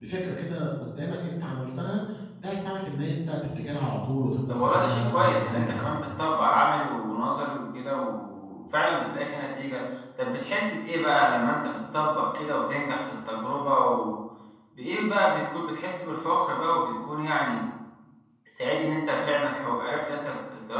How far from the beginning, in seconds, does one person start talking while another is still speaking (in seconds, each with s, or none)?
4.5 s